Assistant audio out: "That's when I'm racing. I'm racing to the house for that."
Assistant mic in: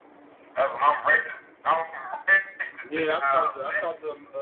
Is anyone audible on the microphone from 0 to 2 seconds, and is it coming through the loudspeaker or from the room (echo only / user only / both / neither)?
echo only